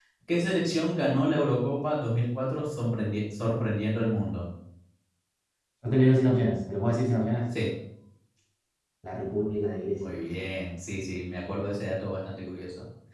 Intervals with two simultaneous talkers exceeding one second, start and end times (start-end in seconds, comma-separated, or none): none